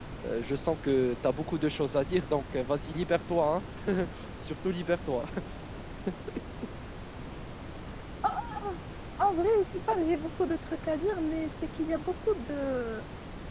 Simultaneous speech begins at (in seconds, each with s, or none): none